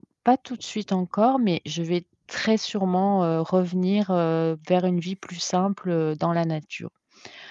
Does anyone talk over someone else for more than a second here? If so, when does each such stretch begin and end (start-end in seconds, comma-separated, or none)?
none